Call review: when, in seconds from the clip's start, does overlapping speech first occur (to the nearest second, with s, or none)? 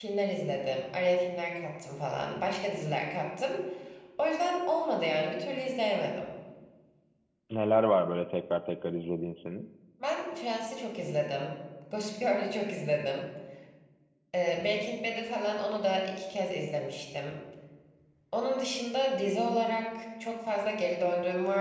none